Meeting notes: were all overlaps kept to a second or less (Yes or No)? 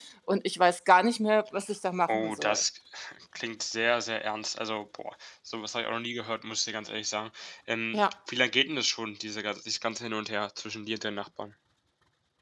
Yes